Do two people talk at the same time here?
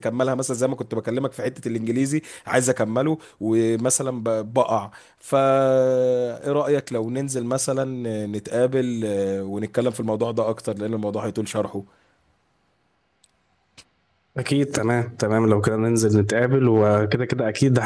No

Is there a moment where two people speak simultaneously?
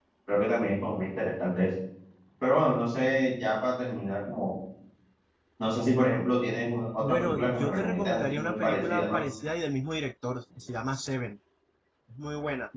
Yes, from 7.0 s

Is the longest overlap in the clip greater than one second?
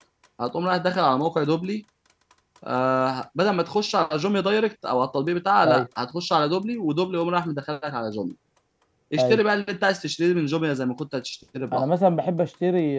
No

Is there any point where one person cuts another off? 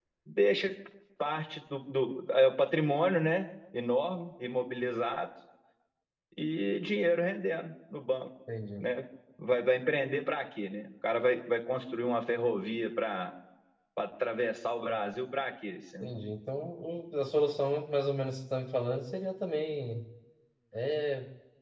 No

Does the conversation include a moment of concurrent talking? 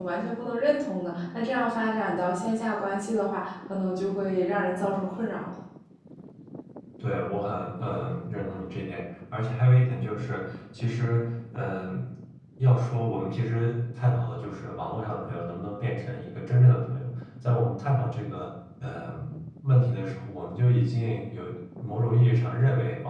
No

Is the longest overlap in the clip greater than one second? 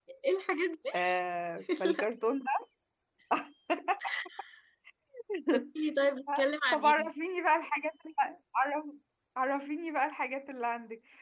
No

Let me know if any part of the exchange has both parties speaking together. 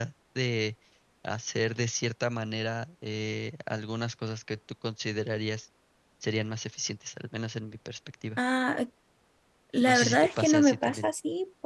Yes, from 9.9 s

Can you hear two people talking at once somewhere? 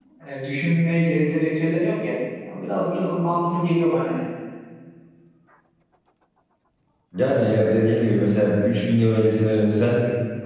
No

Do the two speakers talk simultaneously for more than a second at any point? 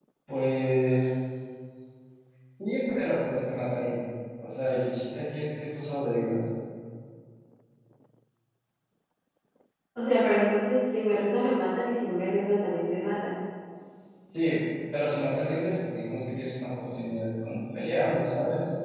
No

